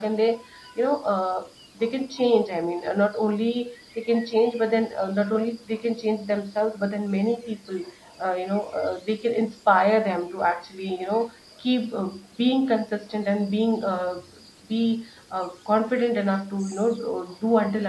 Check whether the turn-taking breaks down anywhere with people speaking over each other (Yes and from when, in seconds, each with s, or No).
No